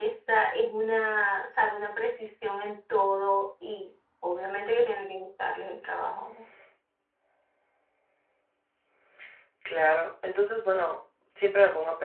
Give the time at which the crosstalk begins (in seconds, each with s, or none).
none